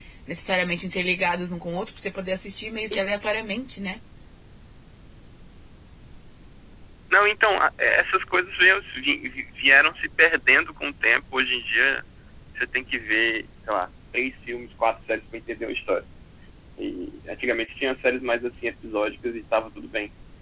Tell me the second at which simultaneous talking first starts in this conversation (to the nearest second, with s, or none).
none